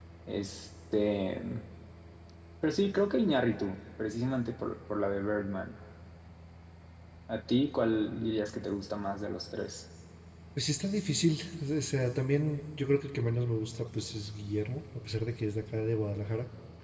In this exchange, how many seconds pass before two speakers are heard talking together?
none

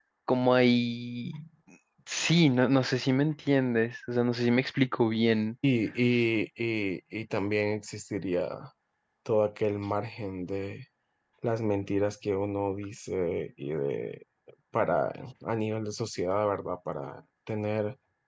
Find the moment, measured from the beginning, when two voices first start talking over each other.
none

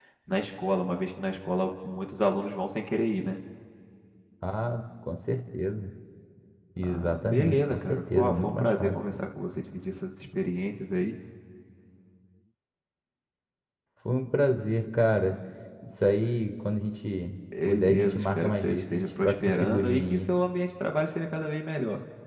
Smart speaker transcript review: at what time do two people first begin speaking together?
6.8 s

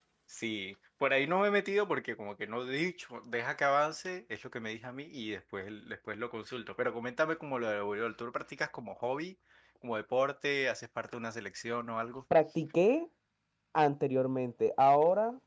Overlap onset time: none

